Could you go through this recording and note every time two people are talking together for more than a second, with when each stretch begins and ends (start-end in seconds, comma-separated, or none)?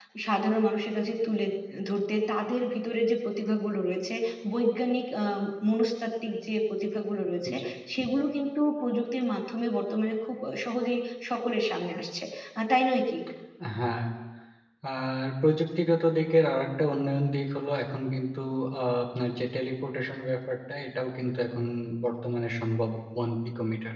none